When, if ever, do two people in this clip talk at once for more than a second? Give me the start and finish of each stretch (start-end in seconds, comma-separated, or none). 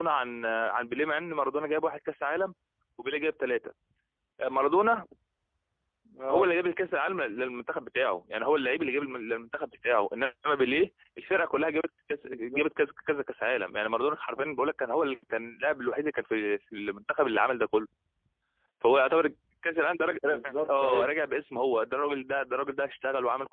none